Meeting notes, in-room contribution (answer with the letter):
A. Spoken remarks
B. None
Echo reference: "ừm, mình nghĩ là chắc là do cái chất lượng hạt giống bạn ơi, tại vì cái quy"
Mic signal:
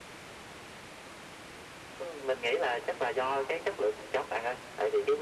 B